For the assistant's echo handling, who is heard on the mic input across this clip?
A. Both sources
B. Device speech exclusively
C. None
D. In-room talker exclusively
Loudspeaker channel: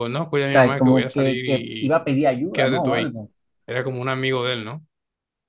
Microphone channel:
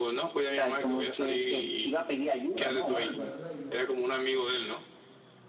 A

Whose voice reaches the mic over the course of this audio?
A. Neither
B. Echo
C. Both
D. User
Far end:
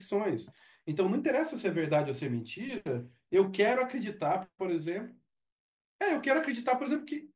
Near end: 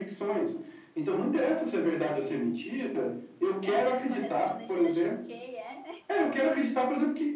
C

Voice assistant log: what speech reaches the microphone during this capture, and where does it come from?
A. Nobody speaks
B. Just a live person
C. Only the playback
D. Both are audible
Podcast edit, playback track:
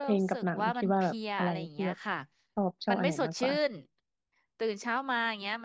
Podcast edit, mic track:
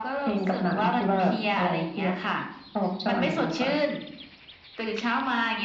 C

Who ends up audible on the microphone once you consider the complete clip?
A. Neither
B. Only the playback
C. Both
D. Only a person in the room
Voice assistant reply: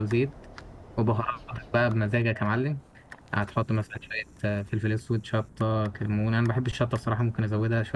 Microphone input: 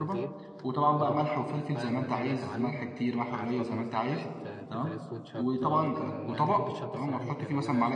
C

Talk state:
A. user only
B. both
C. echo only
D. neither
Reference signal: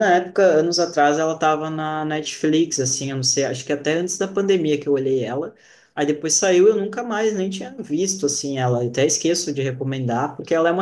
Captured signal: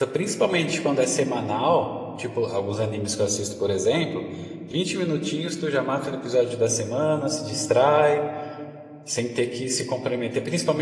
A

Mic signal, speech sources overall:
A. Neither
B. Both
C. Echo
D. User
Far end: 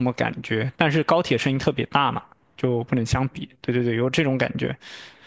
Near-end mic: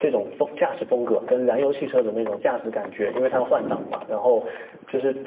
D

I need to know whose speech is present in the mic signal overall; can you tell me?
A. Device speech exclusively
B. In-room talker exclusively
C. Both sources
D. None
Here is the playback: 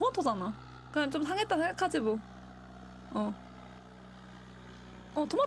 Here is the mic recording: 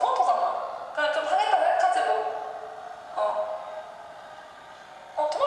A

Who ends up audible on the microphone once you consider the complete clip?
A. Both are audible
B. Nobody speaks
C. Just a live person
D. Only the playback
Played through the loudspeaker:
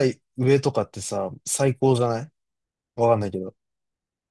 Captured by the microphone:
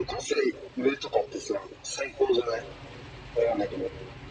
D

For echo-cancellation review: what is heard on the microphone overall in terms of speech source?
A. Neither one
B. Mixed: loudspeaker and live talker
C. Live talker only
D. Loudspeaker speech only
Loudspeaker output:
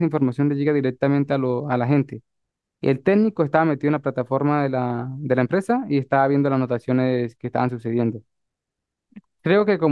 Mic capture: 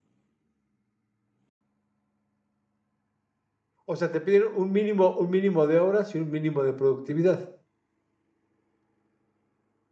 C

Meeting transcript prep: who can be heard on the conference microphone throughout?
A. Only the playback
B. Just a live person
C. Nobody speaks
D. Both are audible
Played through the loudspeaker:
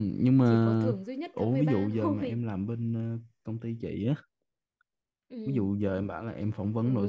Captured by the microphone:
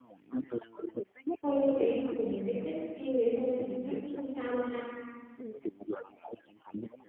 D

